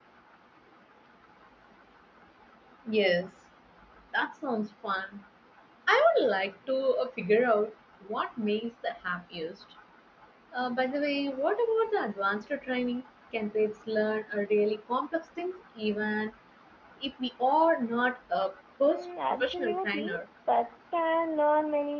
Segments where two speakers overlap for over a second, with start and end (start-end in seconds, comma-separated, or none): 18.9-20.2